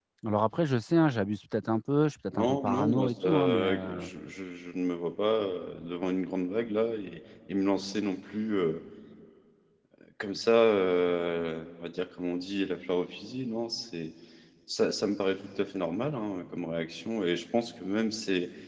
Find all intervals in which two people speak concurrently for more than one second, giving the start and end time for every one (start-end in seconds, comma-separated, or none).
2.4-4.1